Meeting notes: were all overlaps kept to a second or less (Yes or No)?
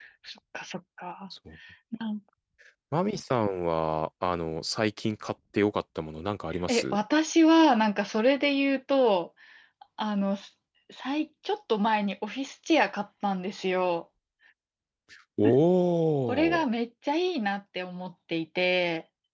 Yes